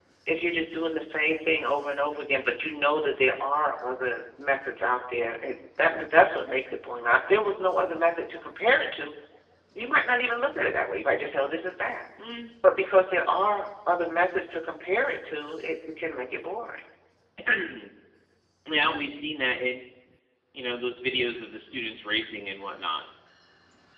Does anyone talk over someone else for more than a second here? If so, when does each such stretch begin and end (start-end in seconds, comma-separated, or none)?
none